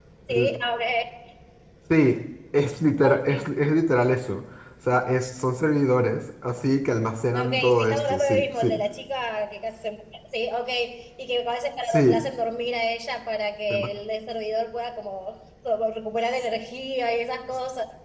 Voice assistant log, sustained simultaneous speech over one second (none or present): present